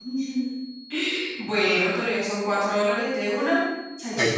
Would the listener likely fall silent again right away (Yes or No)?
No